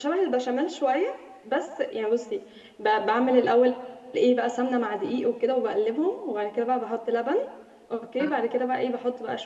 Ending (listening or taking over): listening